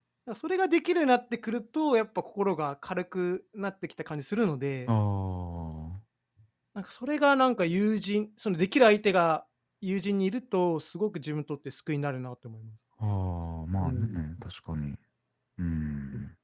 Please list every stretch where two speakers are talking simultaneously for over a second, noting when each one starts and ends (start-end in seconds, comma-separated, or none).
none